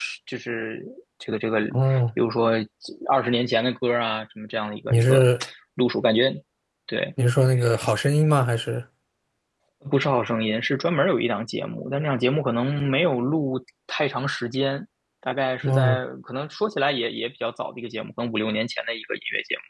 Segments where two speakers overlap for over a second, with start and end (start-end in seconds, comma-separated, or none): none